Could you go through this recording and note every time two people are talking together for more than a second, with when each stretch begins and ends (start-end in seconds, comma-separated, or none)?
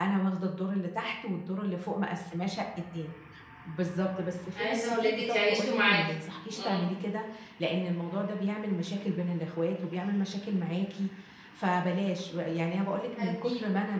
4.5-6.0